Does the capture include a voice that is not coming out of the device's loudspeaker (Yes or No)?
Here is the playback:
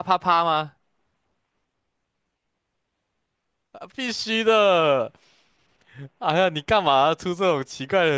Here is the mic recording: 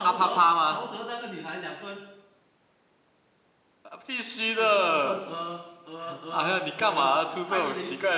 Yes